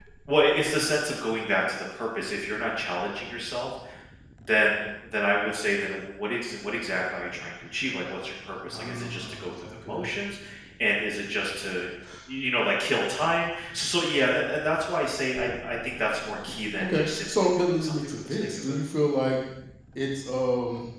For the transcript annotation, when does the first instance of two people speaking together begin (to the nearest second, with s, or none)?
9 s